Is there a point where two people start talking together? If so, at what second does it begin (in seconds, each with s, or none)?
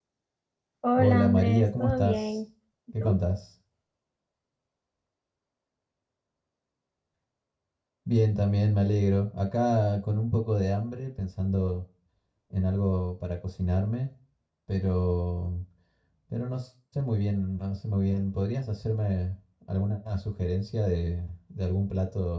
0.9 s